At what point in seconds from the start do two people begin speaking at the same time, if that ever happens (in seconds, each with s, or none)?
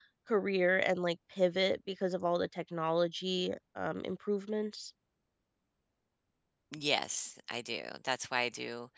none